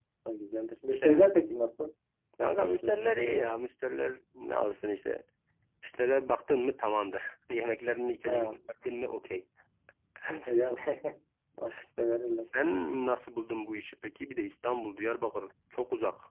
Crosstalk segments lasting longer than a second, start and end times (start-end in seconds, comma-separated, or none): 2.4-3.6